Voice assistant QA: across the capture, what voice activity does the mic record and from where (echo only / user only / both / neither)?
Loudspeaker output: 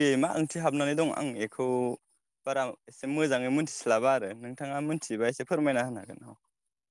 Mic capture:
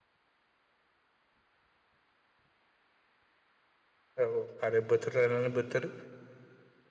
user only